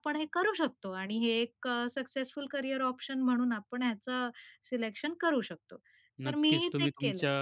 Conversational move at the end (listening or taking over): taking over